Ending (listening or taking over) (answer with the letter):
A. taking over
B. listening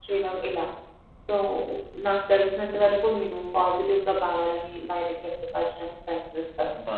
A